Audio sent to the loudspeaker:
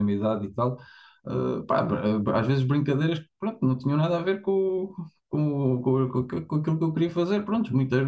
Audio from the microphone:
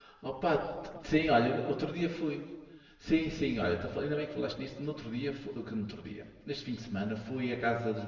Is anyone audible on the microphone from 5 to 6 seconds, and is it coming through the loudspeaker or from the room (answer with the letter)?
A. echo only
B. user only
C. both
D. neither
B